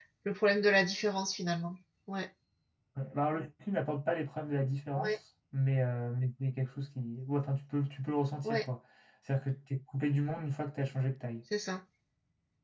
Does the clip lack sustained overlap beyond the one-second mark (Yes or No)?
Yes